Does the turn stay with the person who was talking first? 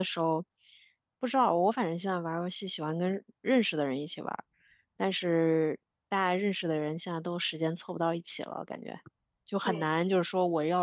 Yes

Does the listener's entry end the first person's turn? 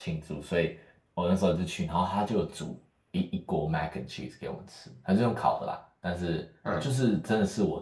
No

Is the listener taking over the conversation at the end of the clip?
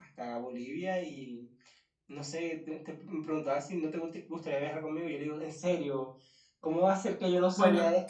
Yes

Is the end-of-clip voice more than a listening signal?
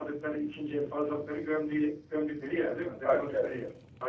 Yes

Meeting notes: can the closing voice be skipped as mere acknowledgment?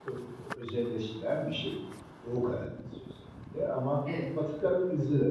Yes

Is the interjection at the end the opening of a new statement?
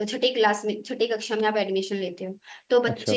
No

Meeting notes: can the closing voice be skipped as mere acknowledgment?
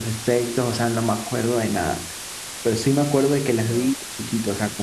Yes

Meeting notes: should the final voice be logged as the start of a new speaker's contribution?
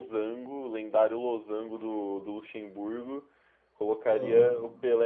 No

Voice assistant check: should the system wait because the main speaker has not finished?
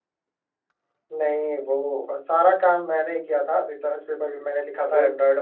No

